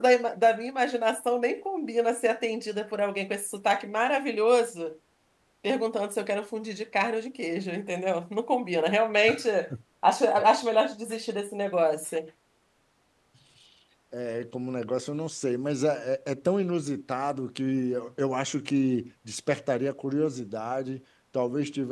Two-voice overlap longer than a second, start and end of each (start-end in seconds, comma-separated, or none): none